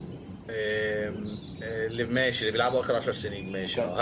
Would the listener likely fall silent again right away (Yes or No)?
No